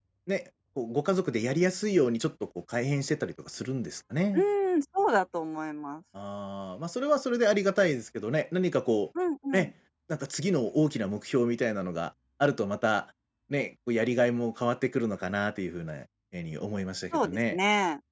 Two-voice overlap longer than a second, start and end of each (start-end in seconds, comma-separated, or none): none